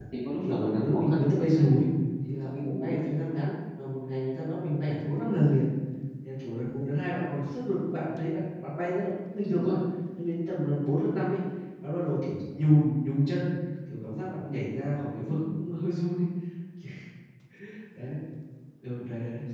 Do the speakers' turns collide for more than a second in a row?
Yes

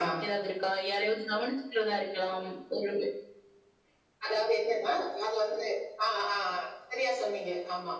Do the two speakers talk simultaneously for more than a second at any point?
No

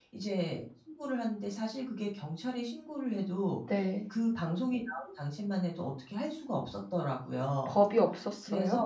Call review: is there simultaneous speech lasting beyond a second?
No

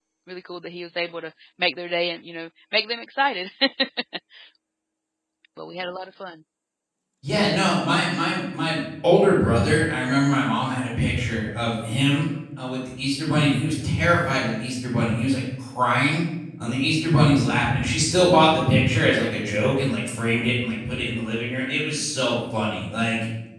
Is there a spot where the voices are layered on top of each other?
No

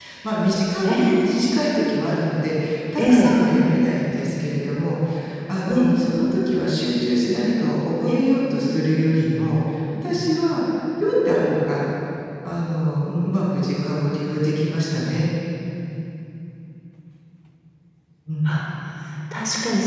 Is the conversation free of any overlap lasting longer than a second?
Yes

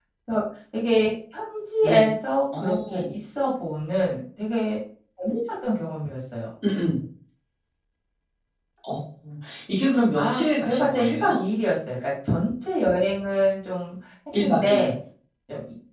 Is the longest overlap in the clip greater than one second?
Yes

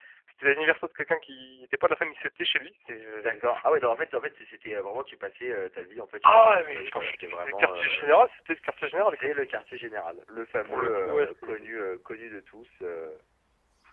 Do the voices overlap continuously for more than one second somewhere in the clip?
Yes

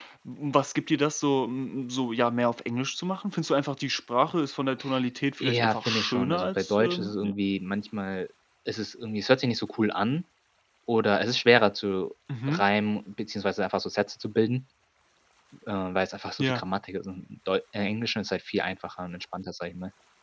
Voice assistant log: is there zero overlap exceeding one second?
No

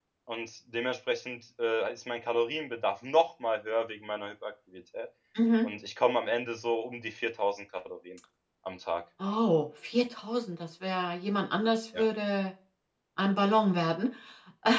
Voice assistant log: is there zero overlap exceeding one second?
Yes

